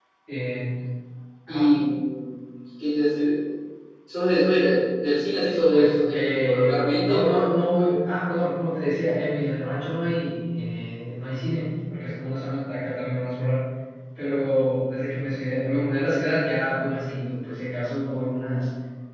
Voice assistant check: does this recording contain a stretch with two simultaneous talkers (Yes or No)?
Yes